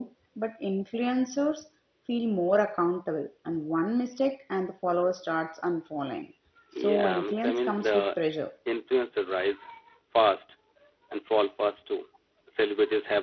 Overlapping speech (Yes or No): Yes